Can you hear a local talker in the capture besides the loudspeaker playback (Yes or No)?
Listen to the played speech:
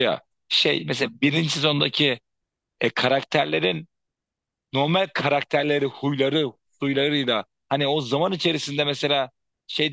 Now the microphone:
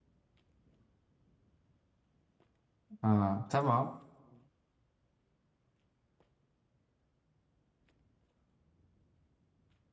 Yes